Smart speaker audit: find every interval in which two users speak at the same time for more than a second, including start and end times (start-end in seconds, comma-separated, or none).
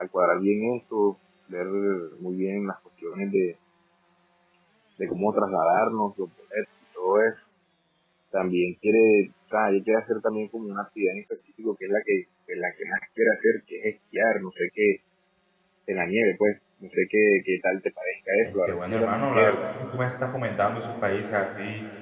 18.4-19.6